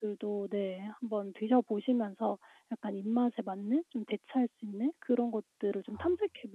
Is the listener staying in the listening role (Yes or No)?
Yes